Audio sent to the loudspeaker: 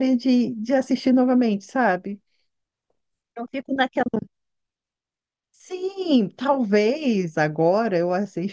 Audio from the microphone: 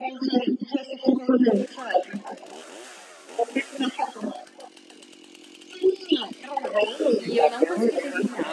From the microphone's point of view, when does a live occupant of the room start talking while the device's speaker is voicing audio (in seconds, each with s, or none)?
7.2 s